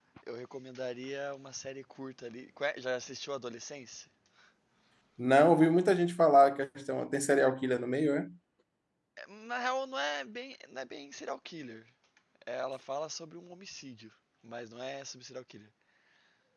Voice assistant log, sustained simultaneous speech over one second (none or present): none